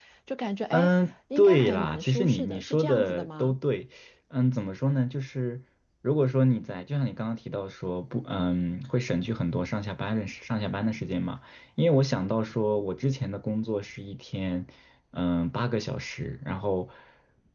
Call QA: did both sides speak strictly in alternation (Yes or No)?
No